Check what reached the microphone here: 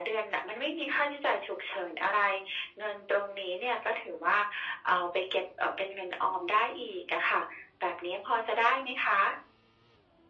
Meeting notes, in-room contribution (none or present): none